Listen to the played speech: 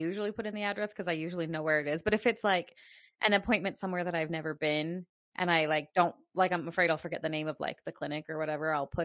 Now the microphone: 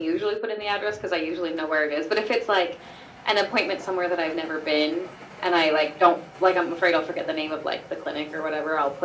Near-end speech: none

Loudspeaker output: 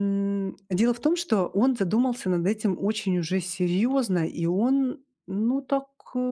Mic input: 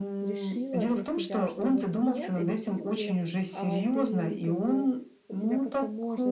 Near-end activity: present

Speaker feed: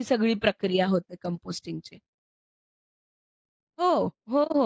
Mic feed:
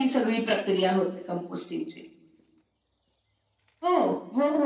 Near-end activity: none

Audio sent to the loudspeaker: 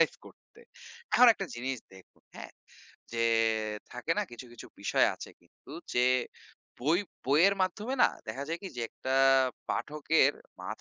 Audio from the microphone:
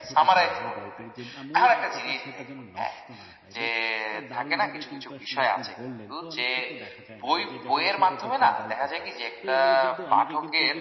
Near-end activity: present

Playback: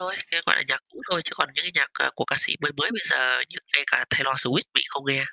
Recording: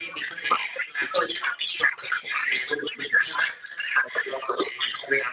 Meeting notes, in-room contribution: present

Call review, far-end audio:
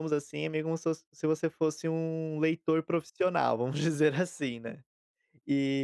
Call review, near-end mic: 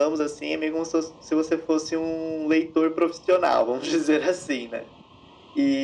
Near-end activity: none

